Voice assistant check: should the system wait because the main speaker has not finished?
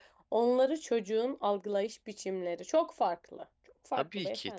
No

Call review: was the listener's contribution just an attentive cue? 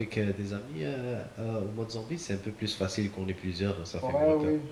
No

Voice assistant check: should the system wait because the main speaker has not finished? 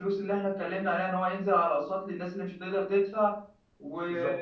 Yes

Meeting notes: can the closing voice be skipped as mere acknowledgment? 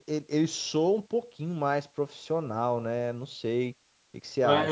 No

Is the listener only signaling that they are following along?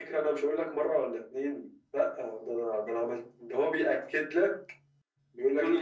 Yes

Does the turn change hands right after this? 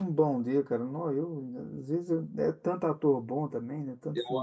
Yes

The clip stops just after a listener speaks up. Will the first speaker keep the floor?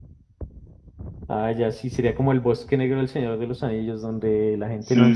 No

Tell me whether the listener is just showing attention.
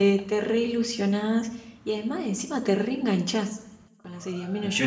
Yes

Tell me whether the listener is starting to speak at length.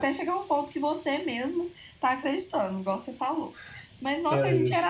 No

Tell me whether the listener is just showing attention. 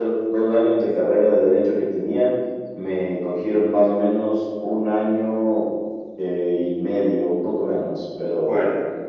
Yes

